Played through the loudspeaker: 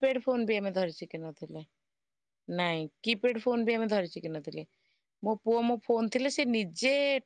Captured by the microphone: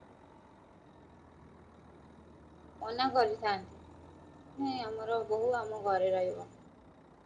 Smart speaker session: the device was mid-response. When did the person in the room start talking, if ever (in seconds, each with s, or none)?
2.9 s